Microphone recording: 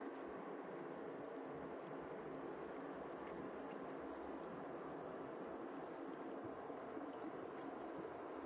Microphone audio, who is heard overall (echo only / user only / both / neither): neither